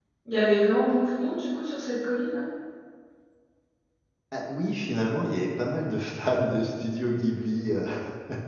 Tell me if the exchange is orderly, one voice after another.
Yes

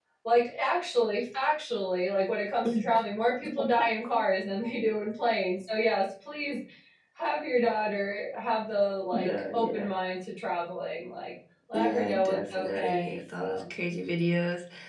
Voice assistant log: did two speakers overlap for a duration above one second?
Yes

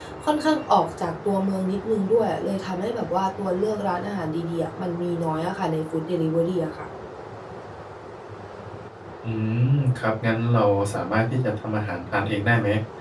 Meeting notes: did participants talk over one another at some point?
No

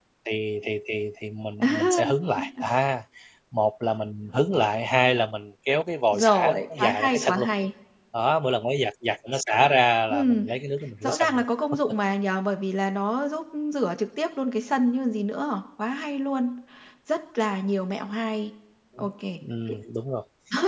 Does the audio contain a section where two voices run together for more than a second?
Yes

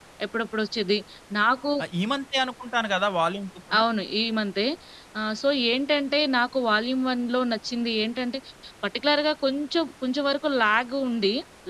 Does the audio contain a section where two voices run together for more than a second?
No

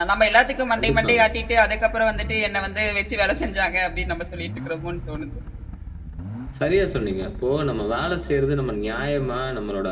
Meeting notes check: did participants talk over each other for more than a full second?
No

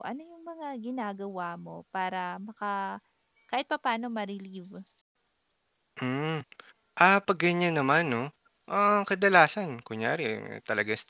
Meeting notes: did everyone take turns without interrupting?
Yes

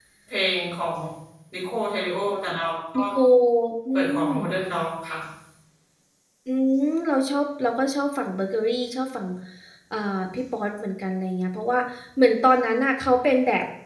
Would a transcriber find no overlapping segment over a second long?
Yes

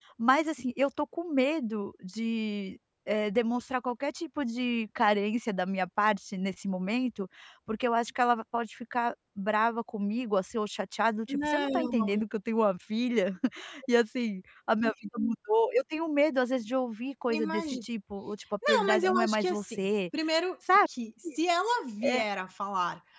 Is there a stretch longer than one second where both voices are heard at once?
Yes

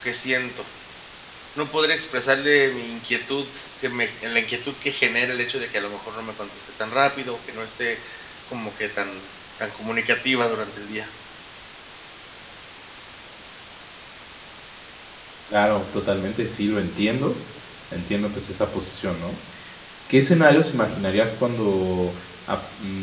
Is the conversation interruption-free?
Yes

